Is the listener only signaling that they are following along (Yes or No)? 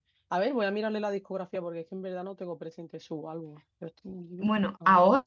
No